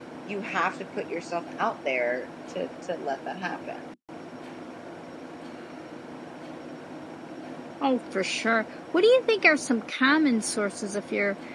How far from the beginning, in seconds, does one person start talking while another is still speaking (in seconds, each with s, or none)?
none